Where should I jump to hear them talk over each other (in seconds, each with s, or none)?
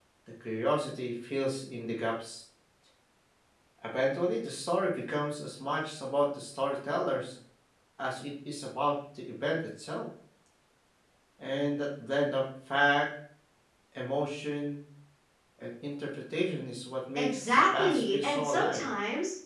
17.2 s